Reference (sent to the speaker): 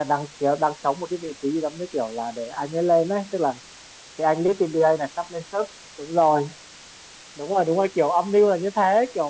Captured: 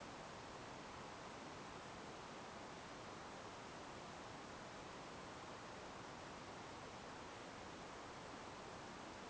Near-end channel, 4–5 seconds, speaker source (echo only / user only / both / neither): neither